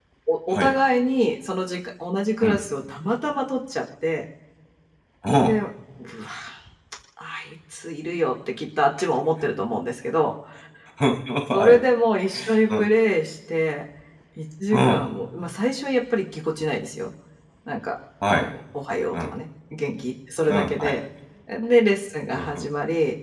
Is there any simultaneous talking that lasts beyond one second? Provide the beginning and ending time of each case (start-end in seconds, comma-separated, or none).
none